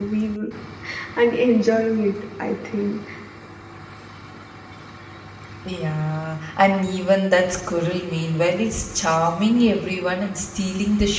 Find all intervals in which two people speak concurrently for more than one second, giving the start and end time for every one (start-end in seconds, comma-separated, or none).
none